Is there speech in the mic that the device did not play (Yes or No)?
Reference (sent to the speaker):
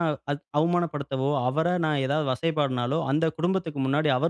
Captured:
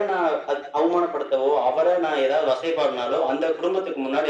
No